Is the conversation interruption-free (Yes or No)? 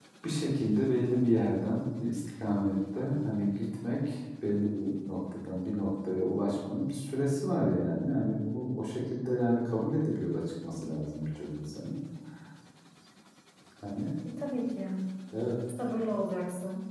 Yes